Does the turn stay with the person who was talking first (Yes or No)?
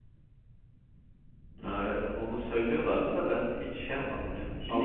No